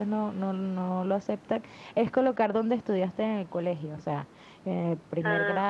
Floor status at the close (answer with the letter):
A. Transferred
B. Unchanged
B